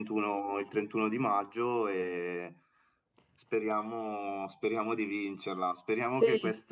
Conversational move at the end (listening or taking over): listening